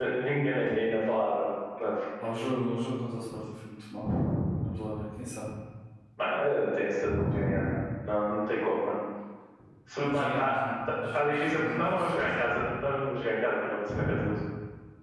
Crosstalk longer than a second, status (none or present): present